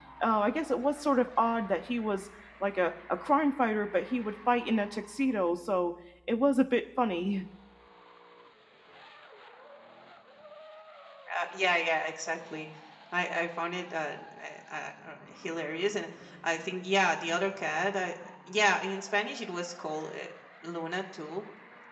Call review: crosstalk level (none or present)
none